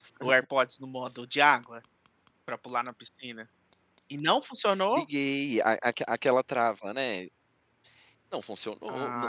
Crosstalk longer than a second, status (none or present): none